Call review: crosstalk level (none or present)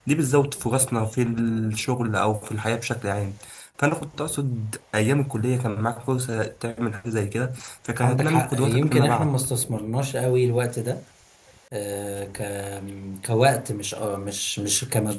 present